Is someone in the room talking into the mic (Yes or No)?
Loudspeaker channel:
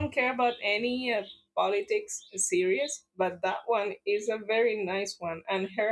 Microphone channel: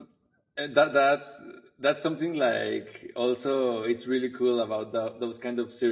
Yes